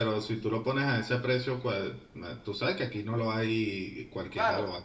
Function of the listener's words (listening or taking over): taking over